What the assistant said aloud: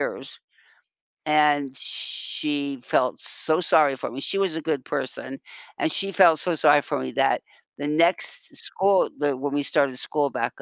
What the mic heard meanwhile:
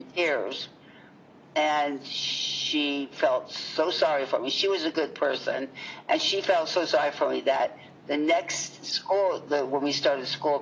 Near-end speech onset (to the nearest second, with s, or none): none